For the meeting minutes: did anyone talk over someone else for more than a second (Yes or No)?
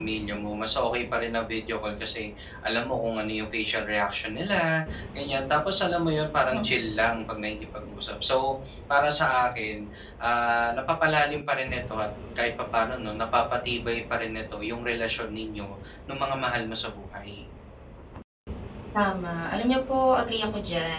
No